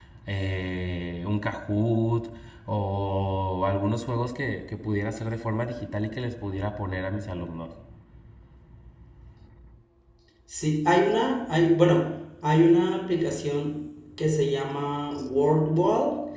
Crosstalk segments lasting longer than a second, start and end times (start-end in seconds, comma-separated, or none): none